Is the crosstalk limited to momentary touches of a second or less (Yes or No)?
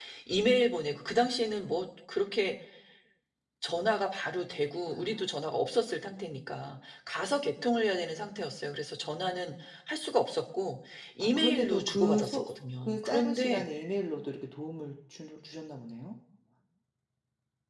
No